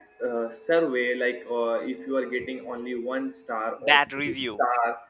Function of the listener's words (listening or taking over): listening